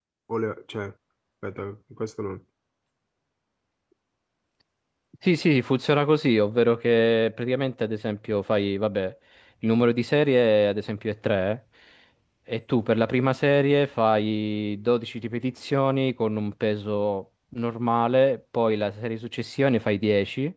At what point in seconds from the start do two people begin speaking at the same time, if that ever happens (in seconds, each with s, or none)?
none